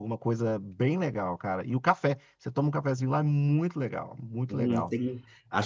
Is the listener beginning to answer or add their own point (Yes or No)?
Yes